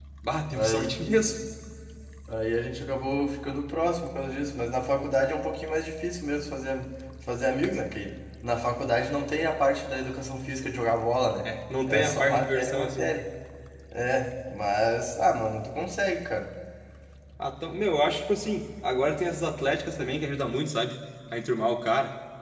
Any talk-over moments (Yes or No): Yes